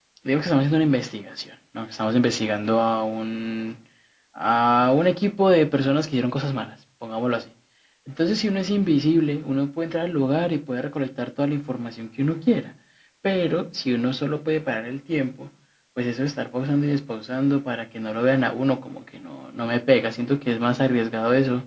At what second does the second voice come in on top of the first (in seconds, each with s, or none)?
none